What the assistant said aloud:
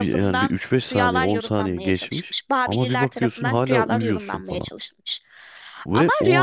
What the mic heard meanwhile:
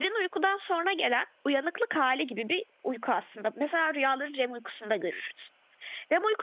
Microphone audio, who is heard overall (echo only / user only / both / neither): user only